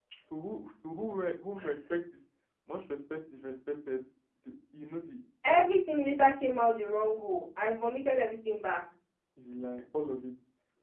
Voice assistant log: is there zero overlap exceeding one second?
Yes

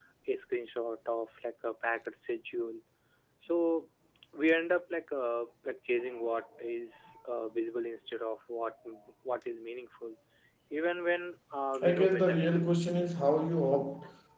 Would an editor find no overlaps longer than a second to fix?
Yes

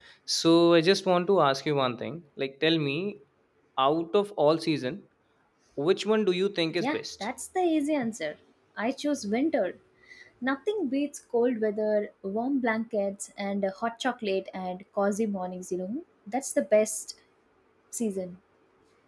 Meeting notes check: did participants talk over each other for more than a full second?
No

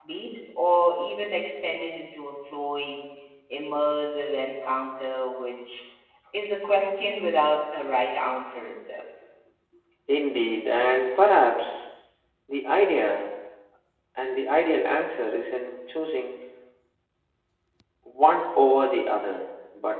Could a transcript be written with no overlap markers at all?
Yes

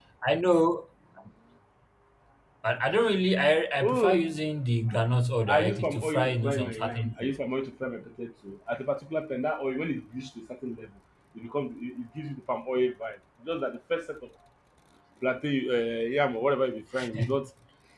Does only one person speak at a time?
No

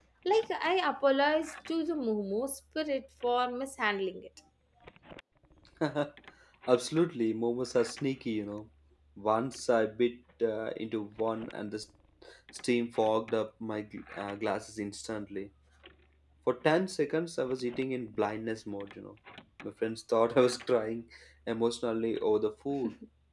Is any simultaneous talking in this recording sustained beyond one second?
No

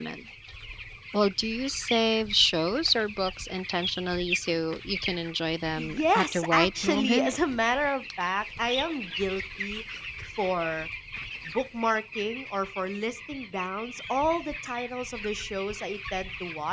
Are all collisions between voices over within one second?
No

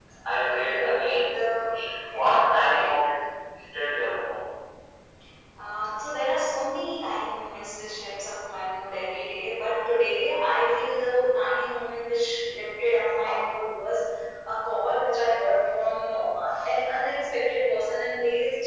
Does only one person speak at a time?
No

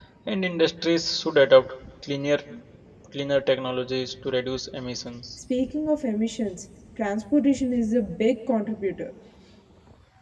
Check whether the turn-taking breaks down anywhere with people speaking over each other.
No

